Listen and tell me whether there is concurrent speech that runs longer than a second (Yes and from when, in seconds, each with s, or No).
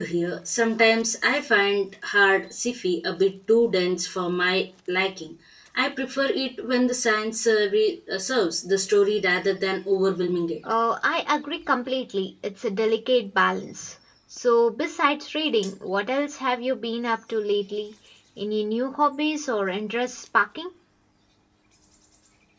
No